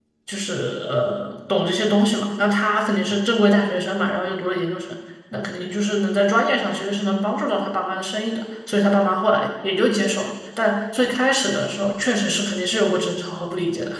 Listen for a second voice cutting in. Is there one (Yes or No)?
No